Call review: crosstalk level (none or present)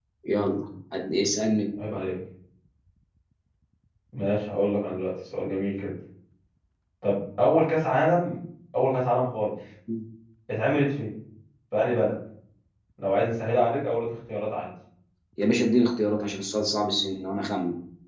none